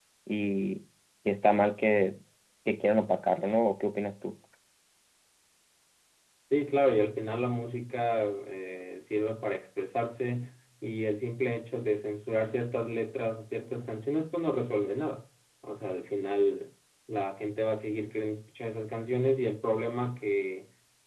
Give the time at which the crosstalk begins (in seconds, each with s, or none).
none